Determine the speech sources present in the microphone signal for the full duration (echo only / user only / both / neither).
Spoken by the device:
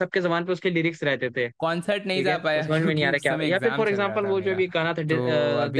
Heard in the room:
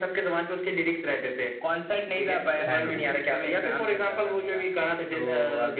both